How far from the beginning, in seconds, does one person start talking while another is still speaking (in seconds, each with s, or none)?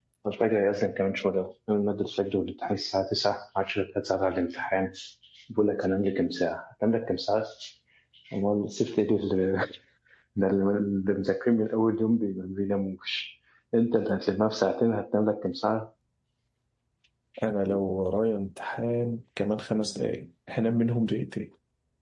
none